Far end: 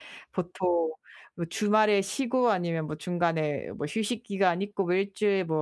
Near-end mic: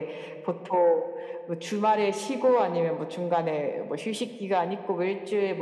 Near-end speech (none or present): none